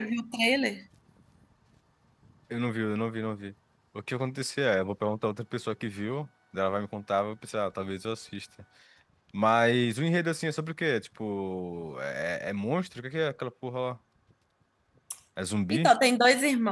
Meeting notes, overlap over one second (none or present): none